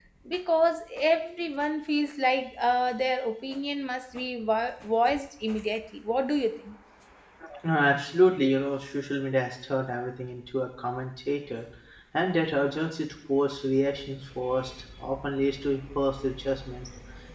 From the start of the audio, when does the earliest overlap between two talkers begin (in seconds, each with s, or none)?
none